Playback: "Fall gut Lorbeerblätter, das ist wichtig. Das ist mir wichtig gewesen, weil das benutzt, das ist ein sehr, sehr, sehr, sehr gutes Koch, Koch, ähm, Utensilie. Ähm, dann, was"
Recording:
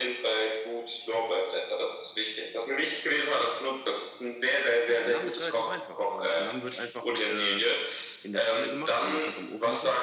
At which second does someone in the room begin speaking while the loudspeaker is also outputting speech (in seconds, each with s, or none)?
4.8 s